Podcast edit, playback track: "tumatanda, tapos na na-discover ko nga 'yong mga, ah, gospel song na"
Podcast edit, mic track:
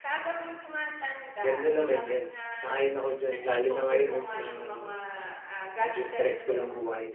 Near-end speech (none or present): present